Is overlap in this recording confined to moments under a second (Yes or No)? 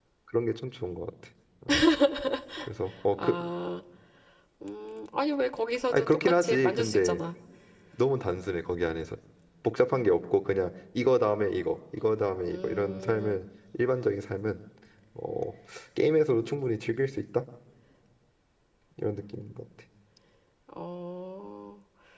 No